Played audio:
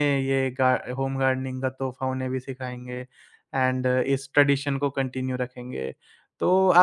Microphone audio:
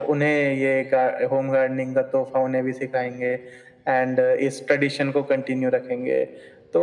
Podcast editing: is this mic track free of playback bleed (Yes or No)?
No